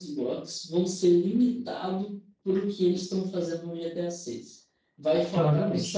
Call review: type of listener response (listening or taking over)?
listening